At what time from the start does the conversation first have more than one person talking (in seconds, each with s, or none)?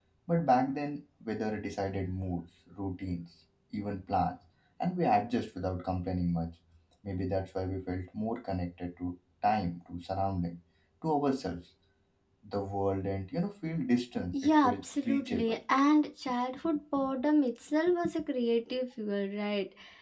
14.3 s